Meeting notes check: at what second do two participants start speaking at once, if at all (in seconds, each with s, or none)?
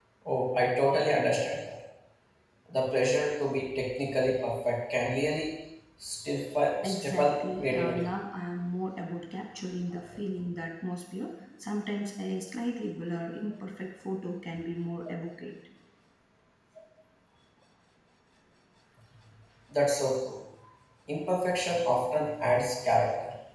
6.8 s